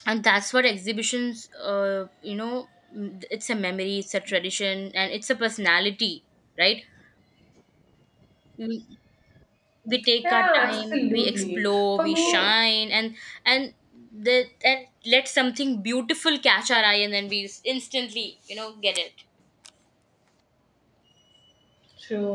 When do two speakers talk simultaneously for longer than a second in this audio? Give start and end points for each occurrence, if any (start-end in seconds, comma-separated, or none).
10.2-12.5